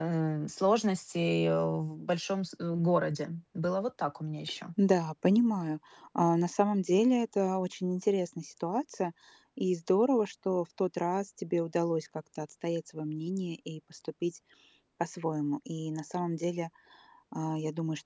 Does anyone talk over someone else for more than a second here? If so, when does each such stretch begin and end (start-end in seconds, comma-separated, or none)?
none